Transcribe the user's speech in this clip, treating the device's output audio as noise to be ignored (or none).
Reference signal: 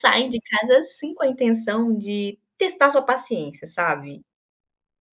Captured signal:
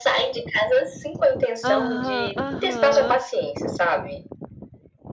Aham, aham,